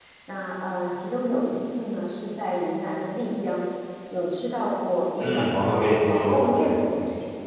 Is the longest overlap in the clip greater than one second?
Yes, from 5.2 s

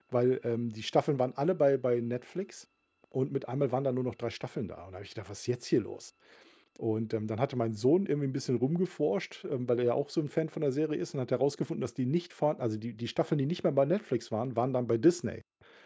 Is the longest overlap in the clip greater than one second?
No

